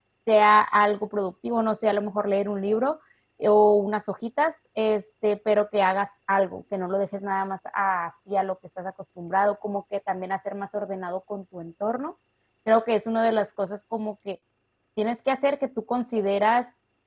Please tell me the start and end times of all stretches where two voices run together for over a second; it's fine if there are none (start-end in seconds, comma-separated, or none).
none